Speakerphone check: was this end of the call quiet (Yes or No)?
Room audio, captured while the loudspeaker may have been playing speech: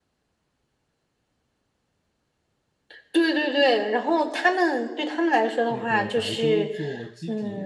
No